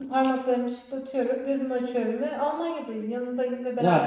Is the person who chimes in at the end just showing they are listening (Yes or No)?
No